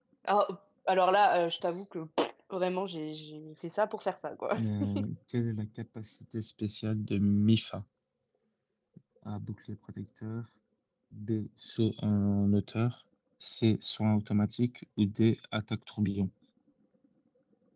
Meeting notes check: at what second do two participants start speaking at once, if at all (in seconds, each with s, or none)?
none